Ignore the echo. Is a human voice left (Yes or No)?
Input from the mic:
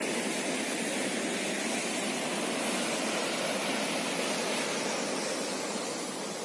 No